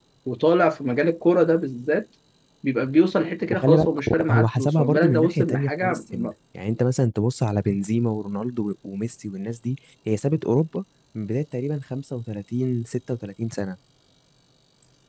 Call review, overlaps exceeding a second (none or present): present